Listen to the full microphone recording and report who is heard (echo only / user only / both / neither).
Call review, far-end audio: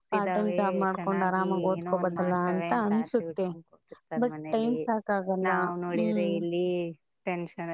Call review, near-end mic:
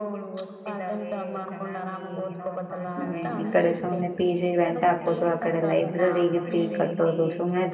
both